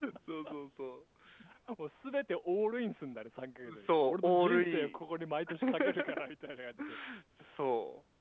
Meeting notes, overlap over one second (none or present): present